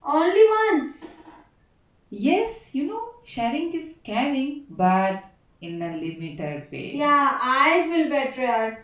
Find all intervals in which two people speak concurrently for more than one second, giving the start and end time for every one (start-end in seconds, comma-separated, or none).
none